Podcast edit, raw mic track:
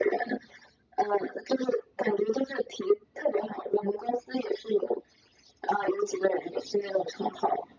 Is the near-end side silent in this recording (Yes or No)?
Yes